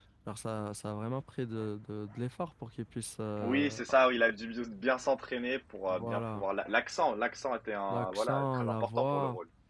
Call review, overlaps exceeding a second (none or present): present